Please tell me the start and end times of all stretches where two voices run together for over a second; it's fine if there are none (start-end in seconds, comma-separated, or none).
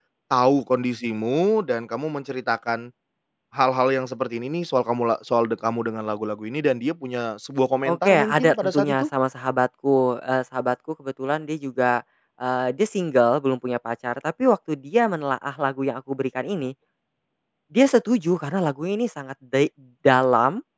7.8-9.1